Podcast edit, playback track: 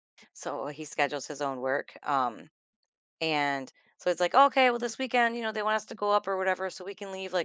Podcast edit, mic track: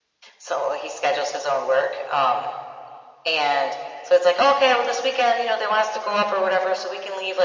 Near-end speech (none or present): none